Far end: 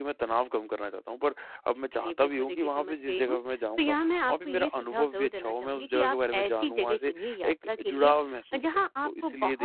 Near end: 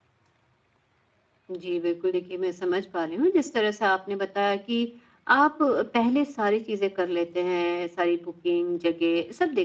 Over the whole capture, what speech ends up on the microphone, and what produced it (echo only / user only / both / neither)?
user only